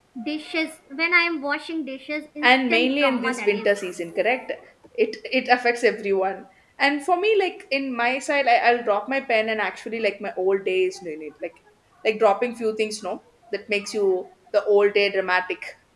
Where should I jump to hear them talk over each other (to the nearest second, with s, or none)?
2 s